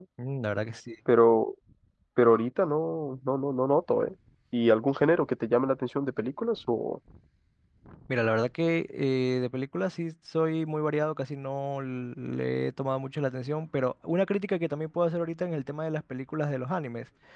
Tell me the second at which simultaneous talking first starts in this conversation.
none

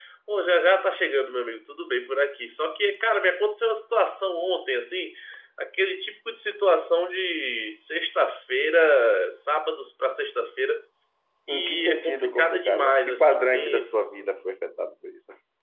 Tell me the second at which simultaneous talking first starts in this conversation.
11.5 s

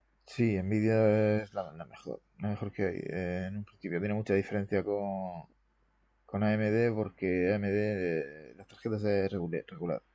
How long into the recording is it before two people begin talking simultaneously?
none

